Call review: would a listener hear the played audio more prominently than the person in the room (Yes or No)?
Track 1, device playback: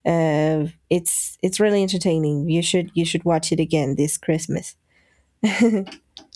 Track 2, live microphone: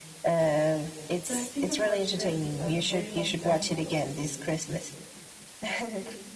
Yes